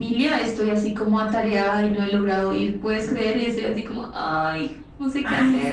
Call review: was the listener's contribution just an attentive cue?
No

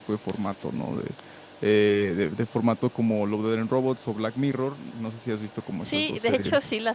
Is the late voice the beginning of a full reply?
Yes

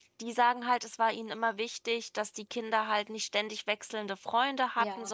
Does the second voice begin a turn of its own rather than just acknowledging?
No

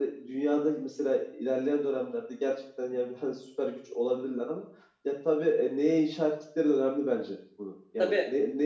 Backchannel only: Yes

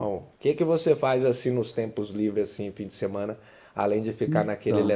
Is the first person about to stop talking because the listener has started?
No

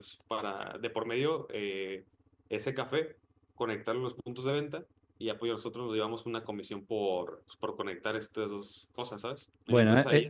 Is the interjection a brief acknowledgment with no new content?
No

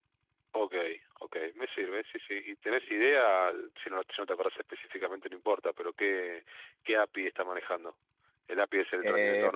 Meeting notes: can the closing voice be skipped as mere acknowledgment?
No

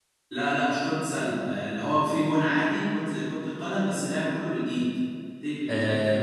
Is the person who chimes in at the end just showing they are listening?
Yes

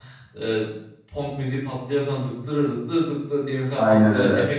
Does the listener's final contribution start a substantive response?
No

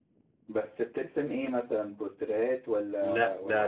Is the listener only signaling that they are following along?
No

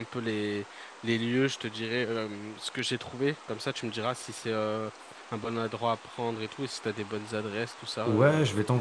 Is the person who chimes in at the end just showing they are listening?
No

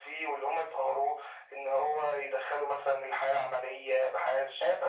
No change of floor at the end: No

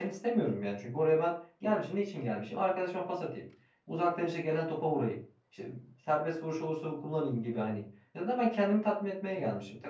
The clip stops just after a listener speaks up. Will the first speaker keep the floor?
Yes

